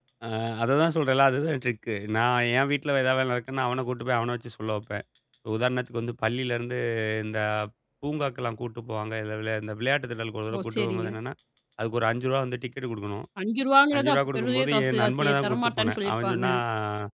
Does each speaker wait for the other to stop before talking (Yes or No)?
No